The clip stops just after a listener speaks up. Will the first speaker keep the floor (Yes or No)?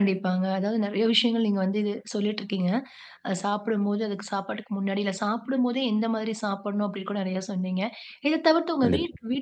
Yes